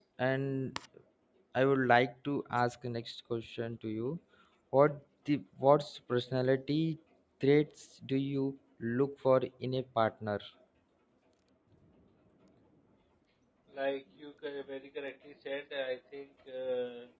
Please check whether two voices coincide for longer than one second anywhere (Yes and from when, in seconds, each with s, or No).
No